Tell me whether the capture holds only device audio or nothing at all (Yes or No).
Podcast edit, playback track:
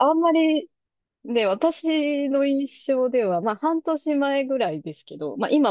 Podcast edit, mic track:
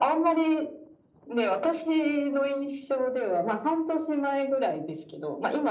Yes